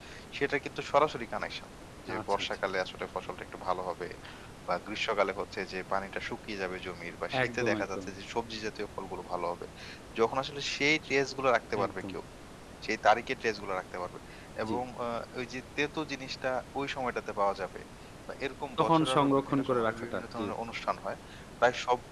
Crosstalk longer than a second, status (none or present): present